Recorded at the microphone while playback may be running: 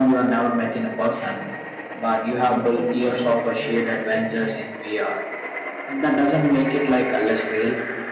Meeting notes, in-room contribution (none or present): present